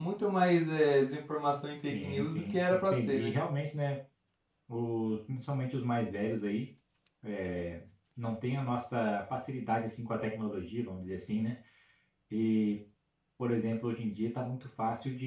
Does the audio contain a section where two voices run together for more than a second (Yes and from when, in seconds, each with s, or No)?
Yes, from 1.9 s